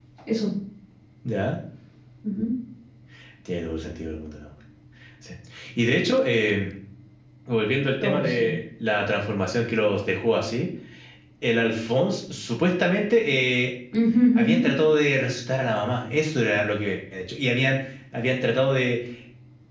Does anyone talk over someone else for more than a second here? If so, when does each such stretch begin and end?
none

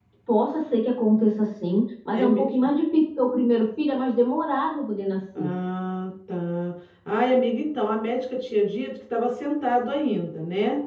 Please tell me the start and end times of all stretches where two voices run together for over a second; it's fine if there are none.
none

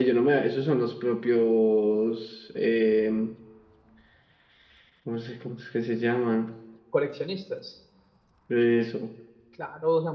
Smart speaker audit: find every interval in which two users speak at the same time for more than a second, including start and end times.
none

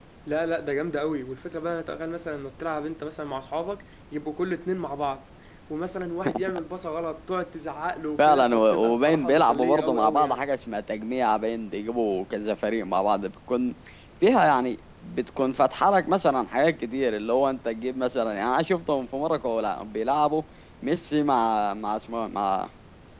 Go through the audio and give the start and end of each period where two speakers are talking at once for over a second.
8.2-10.4

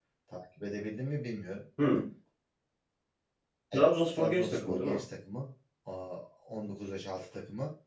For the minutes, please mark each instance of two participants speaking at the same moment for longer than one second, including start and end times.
3.7-5.0

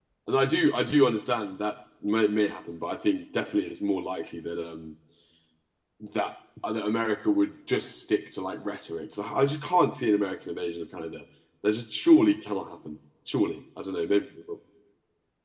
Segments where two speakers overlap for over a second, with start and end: none

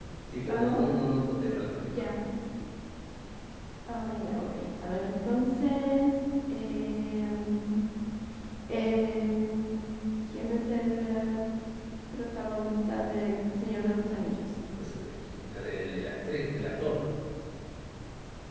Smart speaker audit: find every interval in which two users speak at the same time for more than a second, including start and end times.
none

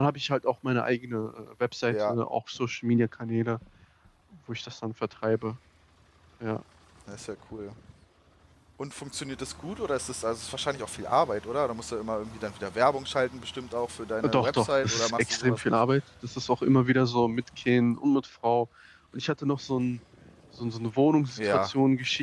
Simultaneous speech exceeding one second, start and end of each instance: 14.2-15.8

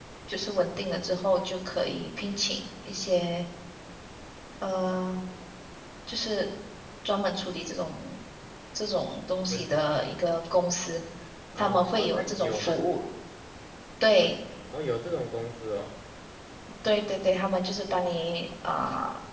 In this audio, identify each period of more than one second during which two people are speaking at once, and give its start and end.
11.6-12.8

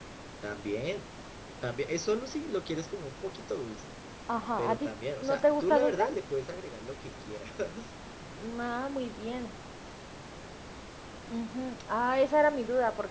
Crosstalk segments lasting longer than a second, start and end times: 4.6-6.0

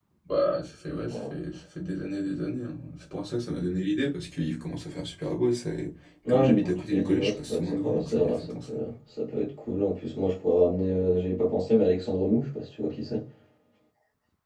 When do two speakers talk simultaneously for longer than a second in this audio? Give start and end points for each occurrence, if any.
6.3-8.6

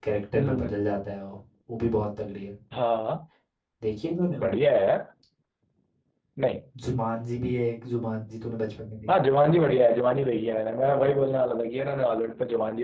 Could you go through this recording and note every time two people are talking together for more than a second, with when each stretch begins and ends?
none

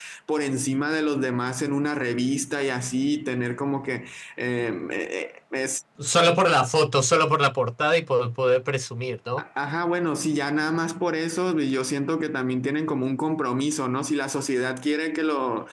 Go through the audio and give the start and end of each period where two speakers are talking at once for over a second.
none

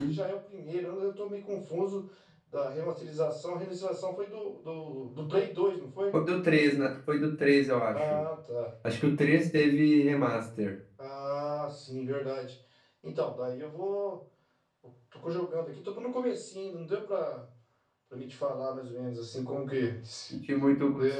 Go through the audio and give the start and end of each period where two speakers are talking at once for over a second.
none

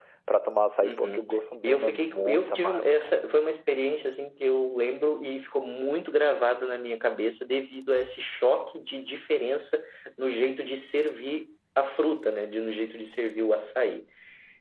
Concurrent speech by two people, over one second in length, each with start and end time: 1.6-3.1

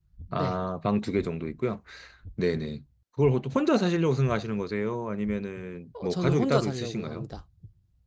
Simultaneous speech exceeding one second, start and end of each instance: 6.0-7.3

